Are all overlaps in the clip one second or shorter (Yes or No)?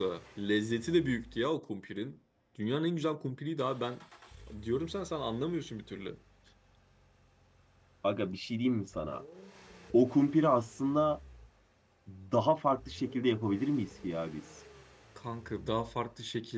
Yes